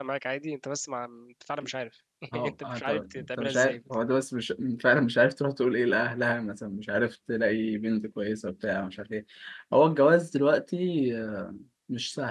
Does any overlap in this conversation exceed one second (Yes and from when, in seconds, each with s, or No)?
Yes, from 2.3 s